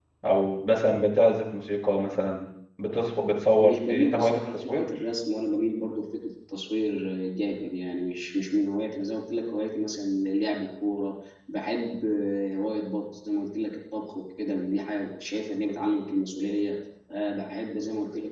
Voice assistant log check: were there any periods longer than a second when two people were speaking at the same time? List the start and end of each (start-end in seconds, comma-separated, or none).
3.6-4.9